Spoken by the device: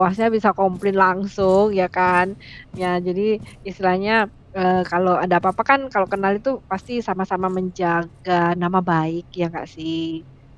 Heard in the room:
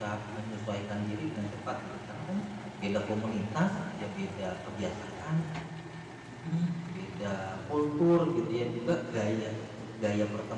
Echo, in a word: none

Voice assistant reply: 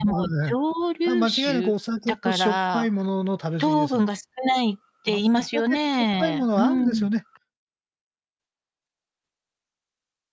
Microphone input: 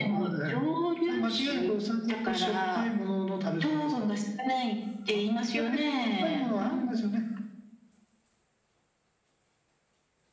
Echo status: present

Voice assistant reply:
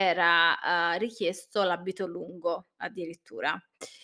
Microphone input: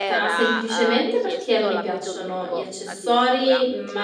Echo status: present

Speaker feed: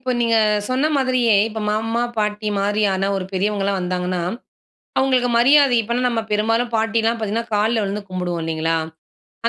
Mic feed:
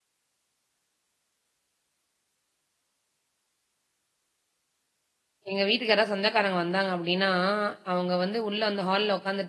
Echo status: none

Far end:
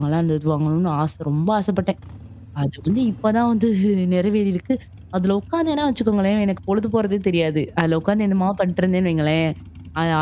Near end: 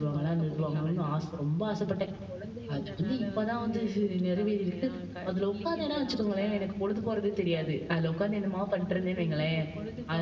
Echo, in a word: present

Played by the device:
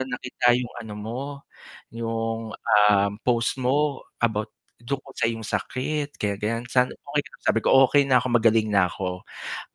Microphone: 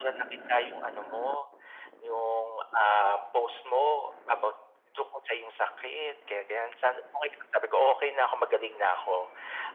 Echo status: present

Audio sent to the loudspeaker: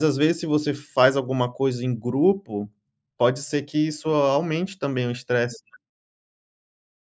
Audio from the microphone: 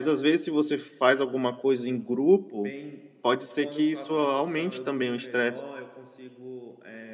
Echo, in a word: present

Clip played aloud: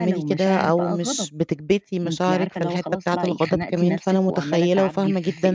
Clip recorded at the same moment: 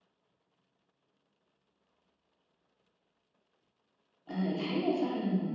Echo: none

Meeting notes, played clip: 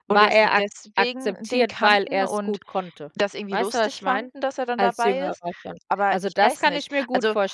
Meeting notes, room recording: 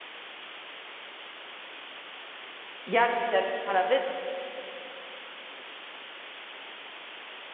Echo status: none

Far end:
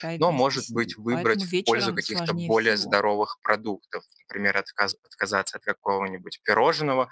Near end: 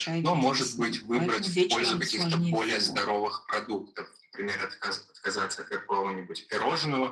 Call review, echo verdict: present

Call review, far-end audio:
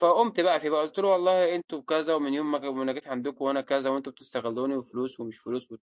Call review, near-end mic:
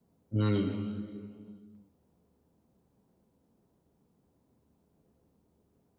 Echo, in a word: none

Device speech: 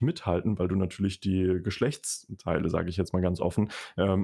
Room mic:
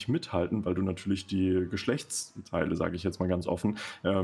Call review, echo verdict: present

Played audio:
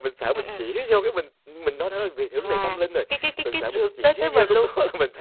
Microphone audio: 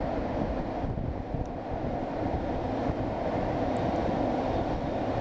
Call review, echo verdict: none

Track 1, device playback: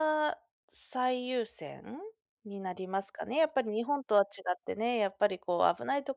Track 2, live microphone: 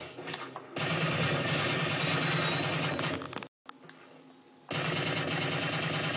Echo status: none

